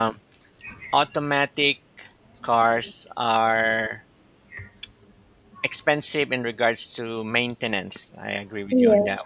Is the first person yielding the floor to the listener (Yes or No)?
No